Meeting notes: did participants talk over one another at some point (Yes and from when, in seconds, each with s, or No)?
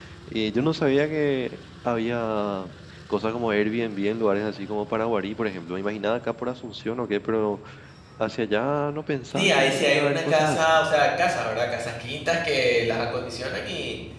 Yes, from 9.3 s